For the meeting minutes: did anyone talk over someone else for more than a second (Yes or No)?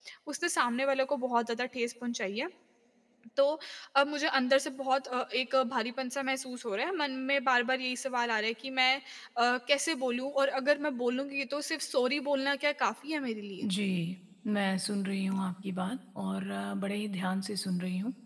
No